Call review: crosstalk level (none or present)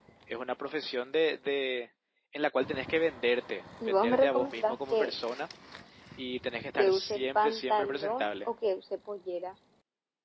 present